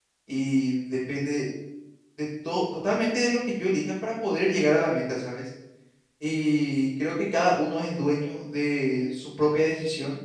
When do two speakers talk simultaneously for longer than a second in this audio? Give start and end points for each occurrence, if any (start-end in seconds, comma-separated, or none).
none